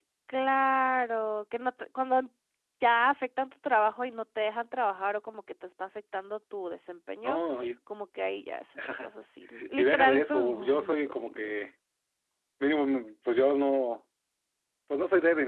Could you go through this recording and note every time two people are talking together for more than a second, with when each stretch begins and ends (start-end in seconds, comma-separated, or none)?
9.8-11.5